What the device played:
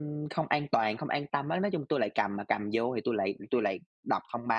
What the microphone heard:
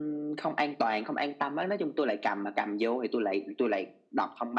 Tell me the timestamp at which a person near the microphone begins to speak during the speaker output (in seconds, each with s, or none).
none